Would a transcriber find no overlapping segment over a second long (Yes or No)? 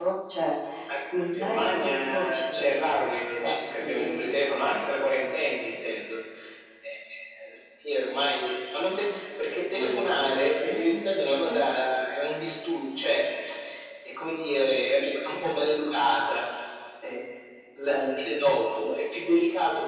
No